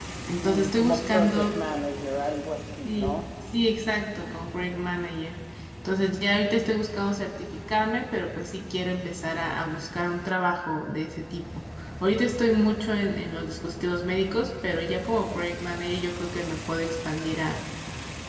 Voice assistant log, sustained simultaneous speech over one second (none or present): present